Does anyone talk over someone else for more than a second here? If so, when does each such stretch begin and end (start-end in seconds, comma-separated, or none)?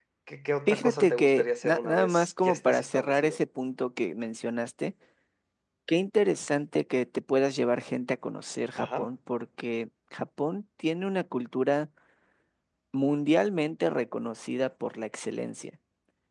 0.7-3.4